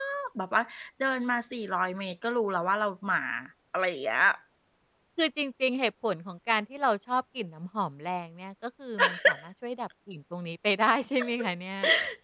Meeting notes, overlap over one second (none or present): none